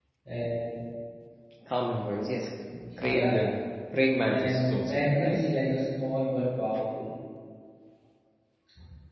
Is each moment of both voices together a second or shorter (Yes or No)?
No